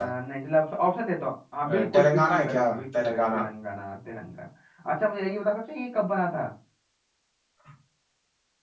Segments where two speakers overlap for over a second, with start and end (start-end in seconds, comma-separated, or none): 1.7-3.4